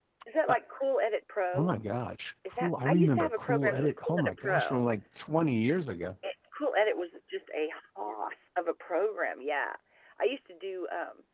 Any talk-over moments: Yes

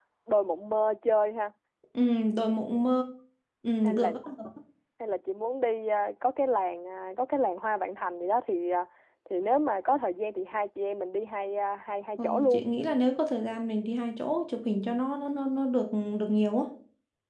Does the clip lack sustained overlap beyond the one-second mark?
Yes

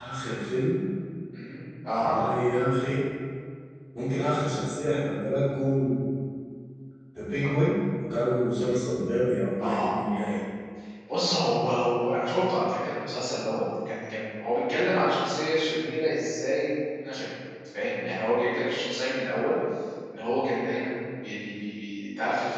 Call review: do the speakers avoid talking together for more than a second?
Yes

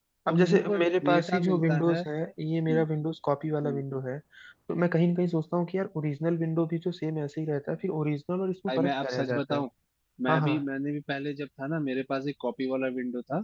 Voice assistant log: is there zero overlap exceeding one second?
No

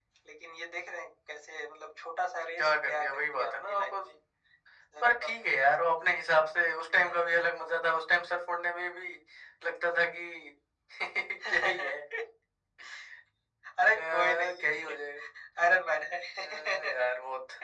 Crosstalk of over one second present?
Yes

